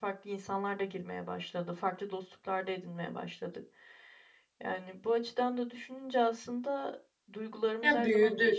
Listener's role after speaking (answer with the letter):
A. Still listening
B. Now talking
A